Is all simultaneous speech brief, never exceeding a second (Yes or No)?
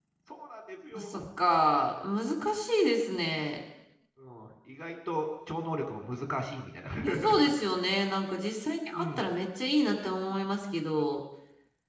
Yes